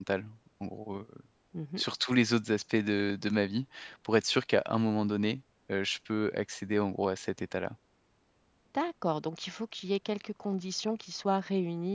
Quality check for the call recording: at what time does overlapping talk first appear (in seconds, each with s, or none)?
none